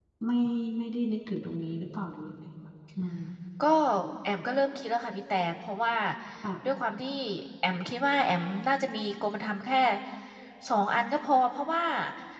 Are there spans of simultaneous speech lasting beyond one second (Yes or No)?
No